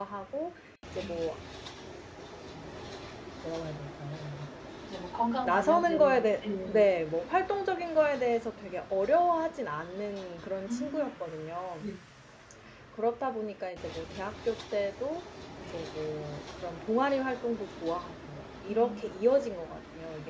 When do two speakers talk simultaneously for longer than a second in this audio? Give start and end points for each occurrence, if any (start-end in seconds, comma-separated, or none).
5.4-6.9